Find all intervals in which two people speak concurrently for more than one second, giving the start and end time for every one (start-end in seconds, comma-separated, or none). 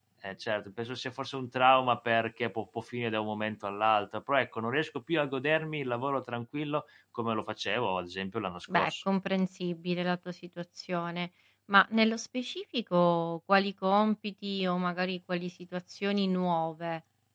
none